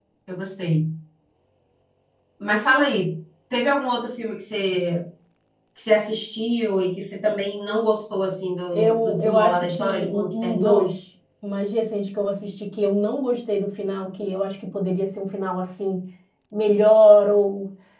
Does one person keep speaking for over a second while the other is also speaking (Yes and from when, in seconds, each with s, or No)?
Yes, from 8.7 s